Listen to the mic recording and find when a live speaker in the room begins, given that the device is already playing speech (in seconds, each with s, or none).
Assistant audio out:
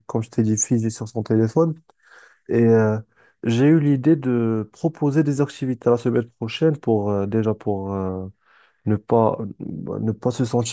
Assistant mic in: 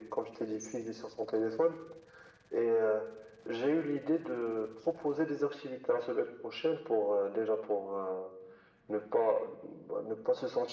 none